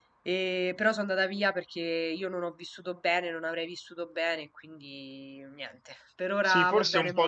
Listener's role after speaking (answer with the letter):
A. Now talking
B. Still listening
A